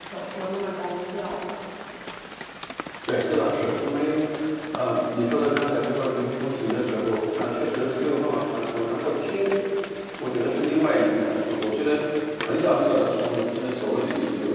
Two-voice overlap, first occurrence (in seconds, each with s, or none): none